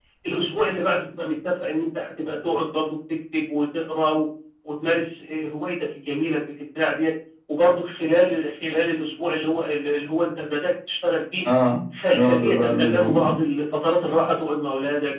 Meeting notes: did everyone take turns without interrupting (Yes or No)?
No